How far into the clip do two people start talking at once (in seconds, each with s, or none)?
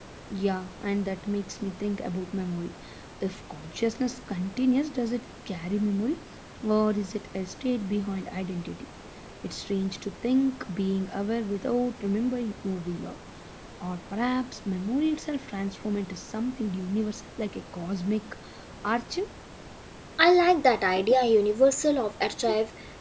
none